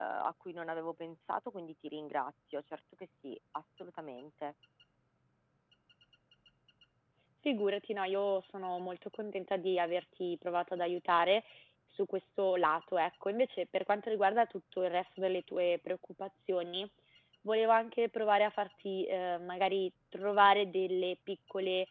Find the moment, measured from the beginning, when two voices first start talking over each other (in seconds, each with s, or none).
none